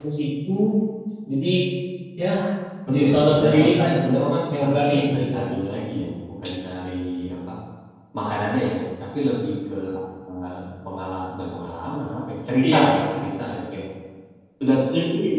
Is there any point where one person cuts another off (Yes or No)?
Yes